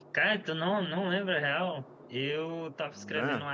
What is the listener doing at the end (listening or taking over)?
listening